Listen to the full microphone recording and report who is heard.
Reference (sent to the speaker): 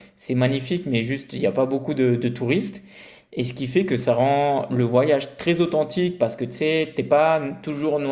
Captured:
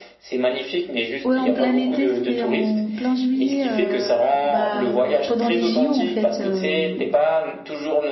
both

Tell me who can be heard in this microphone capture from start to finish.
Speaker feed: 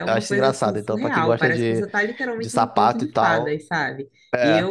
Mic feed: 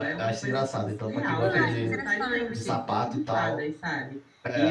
both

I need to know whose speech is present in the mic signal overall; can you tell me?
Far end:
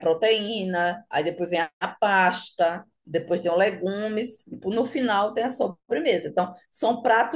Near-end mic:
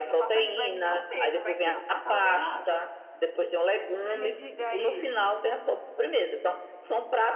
both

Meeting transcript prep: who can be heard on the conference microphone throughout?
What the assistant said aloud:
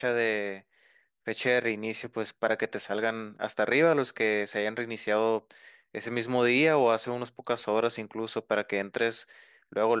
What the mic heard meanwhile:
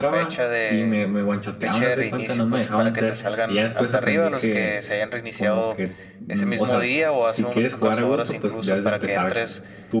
both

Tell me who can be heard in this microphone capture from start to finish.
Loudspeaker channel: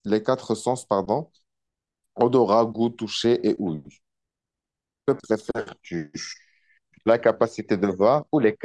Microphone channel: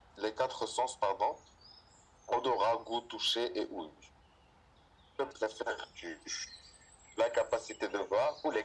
echo only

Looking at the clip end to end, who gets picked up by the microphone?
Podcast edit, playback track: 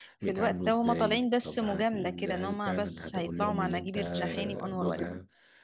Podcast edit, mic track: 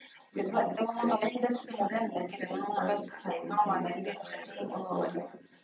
echo only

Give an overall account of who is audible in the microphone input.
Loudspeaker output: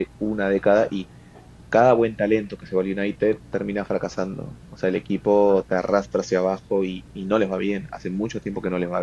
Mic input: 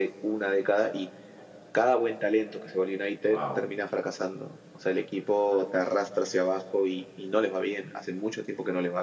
both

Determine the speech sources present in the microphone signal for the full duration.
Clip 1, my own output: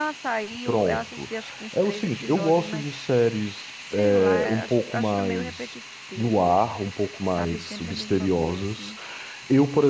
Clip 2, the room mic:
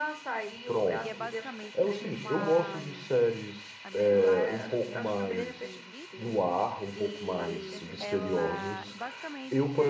both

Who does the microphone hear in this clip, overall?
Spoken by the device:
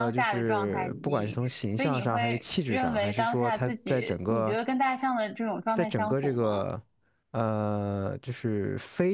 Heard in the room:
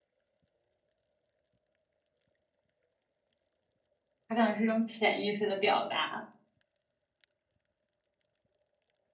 user only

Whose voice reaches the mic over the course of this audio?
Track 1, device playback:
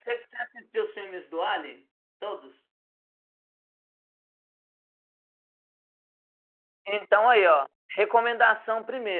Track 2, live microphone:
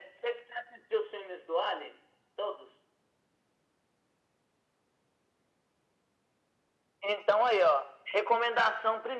echo only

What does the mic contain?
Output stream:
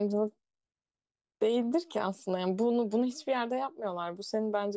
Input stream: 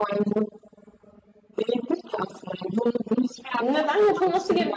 both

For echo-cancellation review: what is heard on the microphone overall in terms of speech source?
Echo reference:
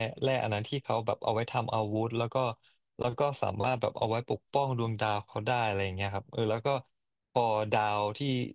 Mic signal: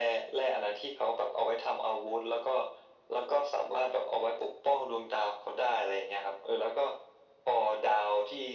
echo only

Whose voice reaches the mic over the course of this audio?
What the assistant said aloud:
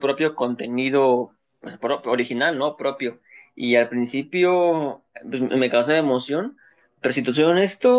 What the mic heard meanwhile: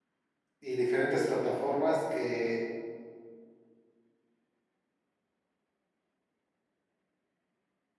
user only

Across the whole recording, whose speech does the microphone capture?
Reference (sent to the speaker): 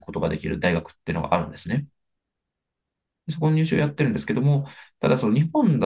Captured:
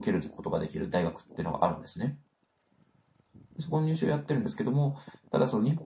echo only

